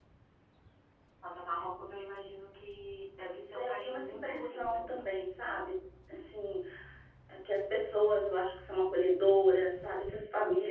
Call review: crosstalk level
present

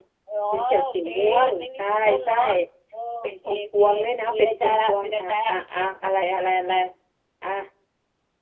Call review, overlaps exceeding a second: present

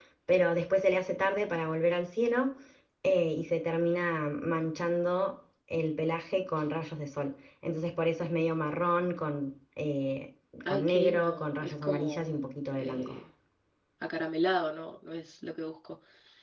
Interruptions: present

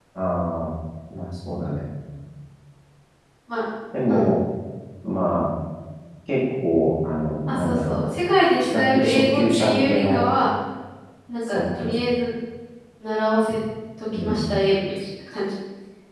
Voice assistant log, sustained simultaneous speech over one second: present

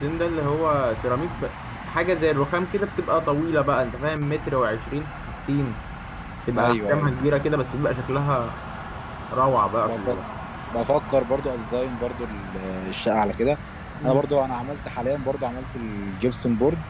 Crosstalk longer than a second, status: none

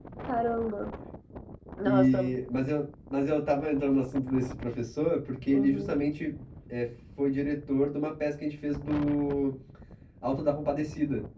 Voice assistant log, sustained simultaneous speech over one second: none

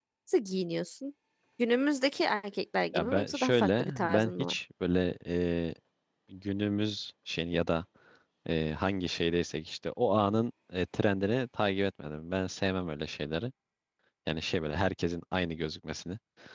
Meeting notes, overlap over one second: present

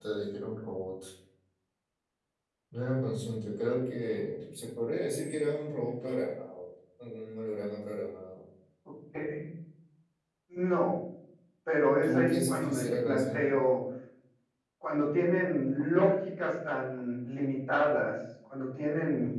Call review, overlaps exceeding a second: present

